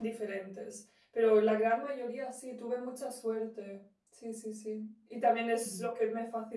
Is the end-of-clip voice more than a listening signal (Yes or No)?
No